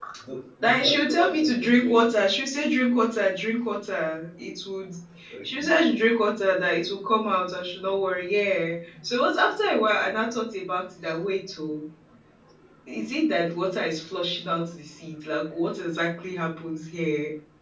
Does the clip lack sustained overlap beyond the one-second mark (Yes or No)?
No